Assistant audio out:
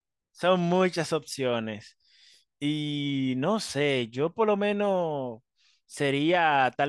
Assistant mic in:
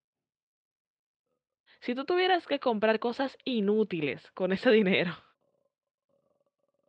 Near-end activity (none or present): present